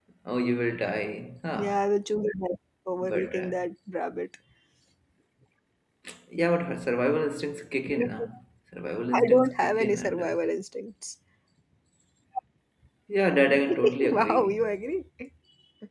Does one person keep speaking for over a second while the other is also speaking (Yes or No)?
Yes